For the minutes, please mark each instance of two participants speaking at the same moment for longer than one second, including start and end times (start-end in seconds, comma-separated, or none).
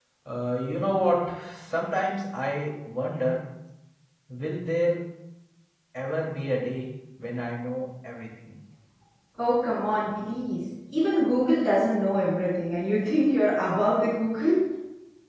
none